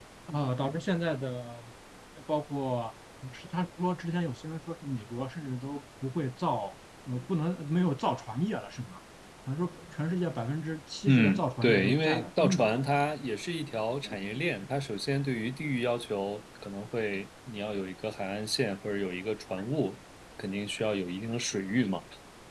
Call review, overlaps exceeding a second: present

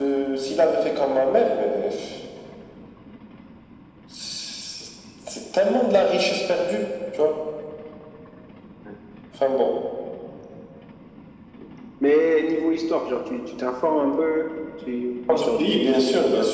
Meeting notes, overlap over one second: present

